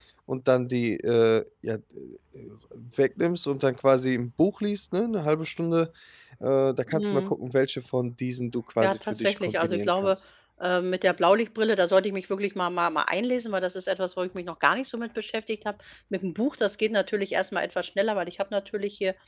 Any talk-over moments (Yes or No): Yes